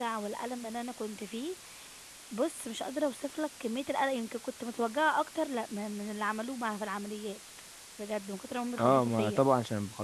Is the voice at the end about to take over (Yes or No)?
Yes